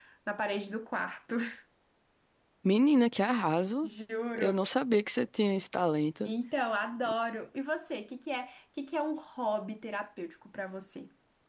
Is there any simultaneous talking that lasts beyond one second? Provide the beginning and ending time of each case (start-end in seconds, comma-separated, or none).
none